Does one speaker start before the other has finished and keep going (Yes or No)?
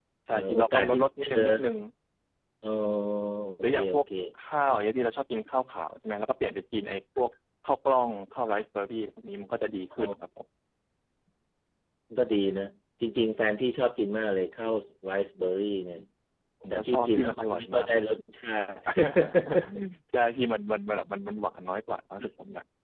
Yes